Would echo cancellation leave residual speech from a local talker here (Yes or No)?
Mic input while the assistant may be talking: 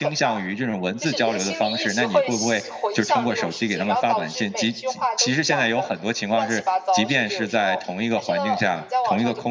Yes